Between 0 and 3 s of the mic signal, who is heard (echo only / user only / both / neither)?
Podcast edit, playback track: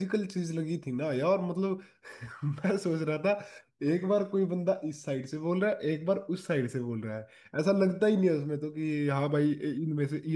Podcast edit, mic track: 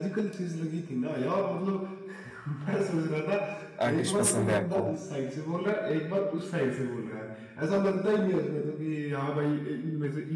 echo only